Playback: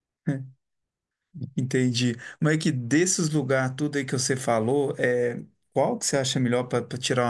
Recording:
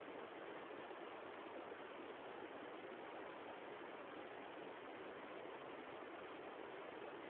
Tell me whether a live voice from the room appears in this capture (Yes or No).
No